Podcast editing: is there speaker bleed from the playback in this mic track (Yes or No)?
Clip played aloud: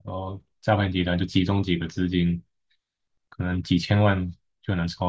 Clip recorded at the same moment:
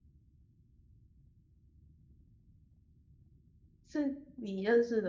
No